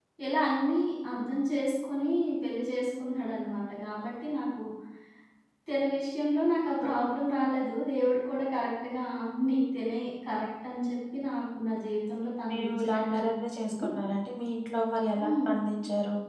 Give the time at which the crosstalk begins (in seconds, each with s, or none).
12.5 s